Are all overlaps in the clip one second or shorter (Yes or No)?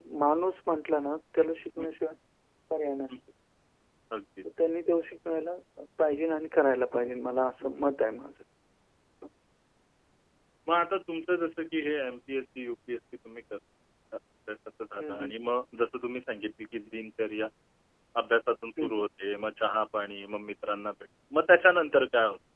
Yes